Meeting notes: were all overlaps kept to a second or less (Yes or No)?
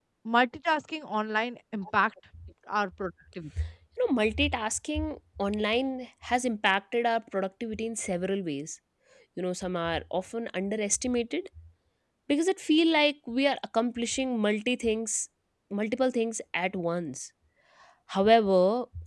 Yes